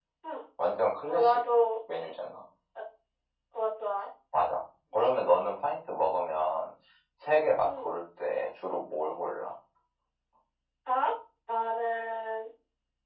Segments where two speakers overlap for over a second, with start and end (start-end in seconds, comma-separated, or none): none